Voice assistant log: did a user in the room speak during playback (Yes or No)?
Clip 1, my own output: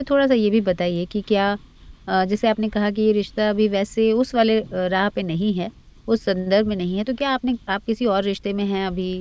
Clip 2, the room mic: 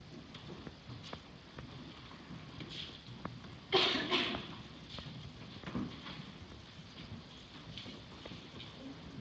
No